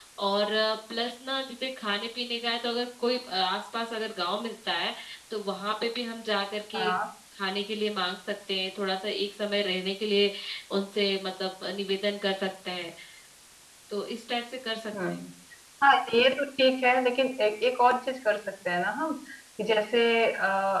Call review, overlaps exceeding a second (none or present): none